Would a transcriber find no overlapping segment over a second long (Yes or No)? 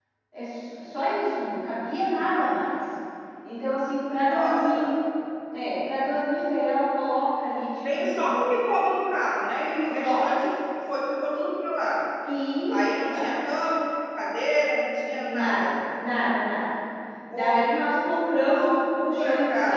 No